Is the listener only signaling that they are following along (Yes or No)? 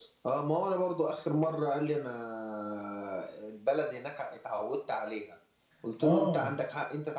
Yes